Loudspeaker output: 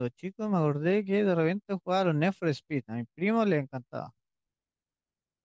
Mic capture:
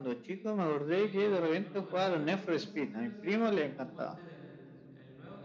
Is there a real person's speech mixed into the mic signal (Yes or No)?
Yes